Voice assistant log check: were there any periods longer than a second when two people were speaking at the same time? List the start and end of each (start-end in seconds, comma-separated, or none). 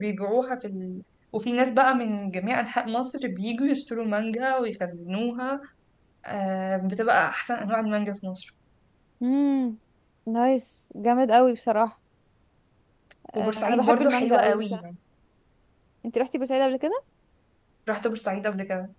13.3-14.8